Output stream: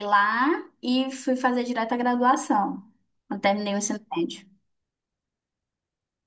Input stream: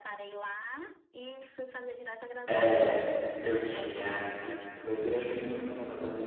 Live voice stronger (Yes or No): Yes